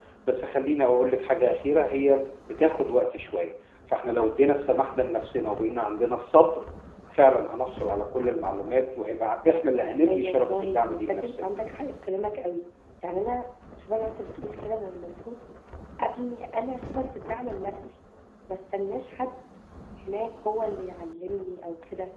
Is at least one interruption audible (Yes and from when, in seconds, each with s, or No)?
Yes, from 10.1 s